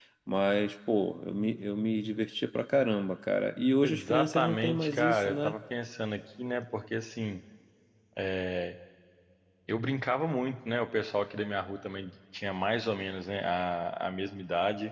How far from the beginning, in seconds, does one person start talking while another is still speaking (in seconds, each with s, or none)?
3.8 s